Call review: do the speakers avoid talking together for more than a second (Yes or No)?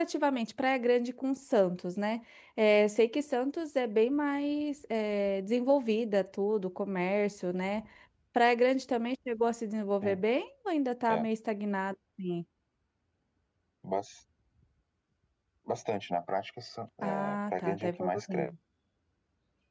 No